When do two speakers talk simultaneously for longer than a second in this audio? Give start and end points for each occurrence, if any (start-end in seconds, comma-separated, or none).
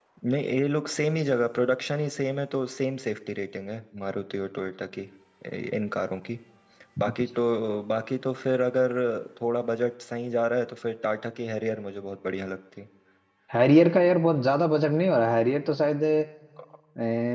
none